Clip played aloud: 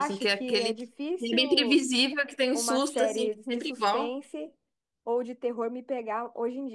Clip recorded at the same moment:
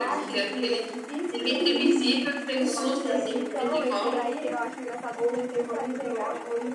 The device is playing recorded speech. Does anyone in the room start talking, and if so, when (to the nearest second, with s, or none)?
3 s